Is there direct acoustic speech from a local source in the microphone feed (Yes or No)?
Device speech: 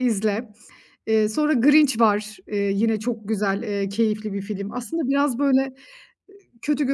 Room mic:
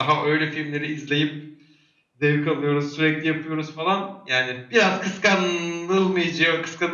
Yes